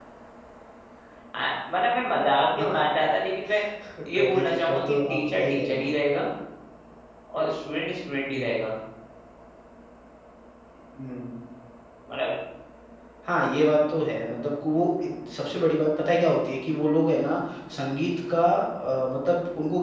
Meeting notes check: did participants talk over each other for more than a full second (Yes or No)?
Yes